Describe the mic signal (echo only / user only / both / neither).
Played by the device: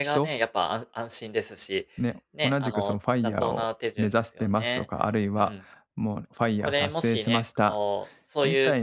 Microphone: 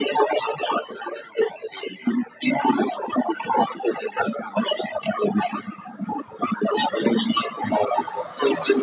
echo only